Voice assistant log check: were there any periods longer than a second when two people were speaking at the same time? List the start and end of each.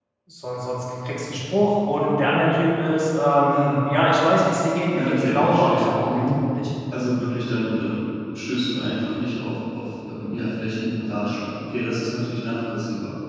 4.9-6.2

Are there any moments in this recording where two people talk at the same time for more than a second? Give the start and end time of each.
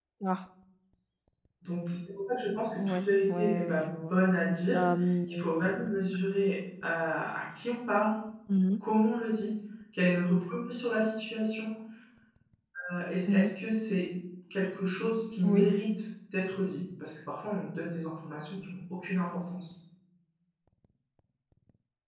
2.8-4.1

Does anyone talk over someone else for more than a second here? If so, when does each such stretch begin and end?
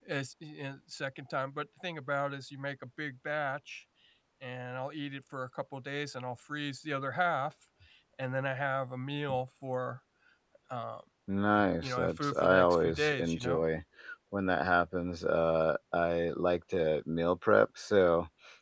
11.8-13.6

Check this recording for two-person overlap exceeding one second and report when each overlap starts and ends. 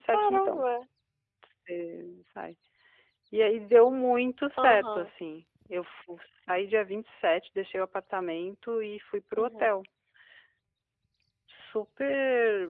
none

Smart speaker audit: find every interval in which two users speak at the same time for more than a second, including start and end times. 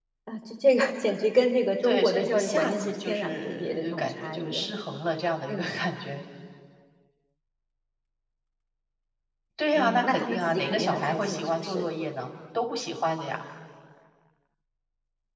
1.8-4.7, 9.7-11.9

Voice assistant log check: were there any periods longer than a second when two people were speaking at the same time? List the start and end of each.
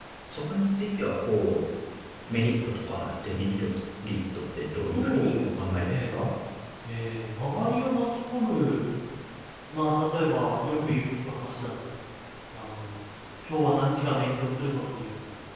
4.9-6.2

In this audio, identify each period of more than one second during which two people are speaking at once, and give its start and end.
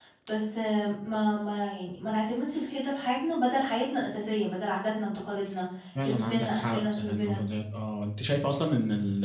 6.0-7.4

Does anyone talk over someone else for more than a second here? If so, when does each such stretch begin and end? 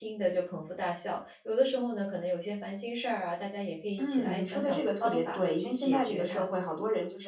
4.0-6.5

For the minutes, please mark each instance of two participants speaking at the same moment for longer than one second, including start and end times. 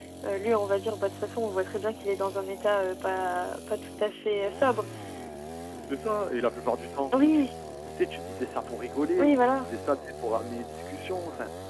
none

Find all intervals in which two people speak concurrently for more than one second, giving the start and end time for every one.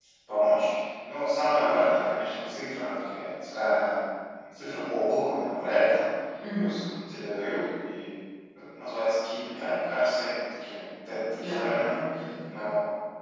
none

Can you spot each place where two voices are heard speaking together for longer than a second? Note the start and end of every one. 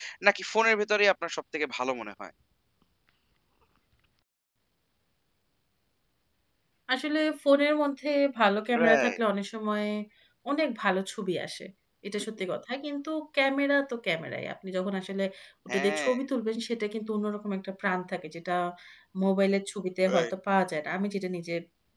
none

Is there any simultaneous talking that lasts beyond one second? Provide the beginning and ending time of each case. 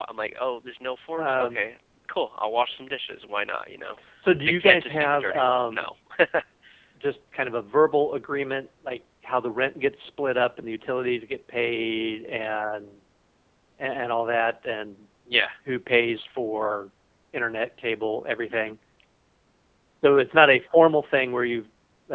4.6-5.9

